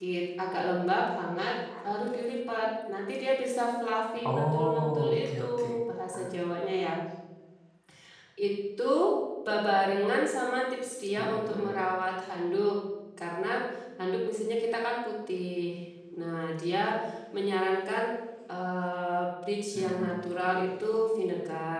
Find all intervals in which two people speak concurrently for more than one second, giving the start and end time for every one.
4.2-5.7

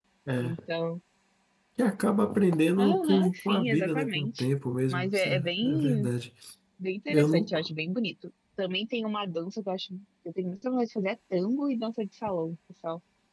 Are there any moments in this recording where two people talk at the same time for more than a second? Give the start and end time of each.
2.8-4.4, 4.9-6.1

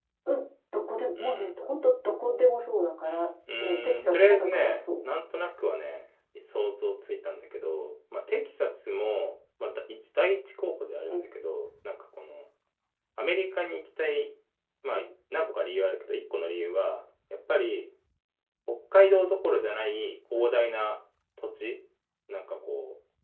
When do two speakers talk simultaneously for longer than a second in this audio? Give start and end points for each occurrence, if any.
3.6-4.8

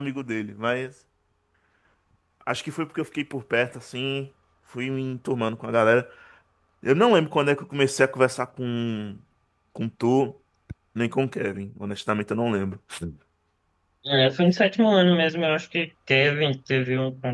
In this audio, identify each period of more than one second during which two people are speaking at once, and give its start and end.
none

